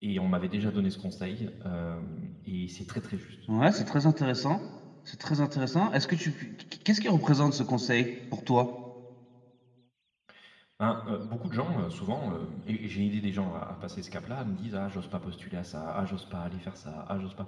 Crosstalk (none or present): none